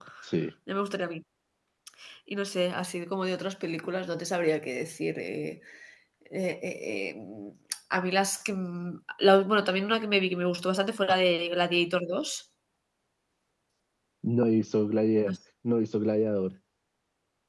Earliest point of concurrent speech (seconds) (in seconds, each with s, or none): none